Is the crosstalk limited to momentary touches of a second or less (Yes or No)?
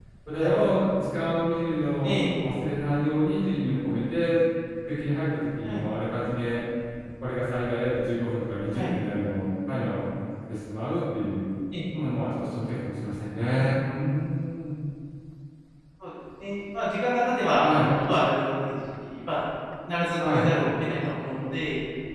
Yes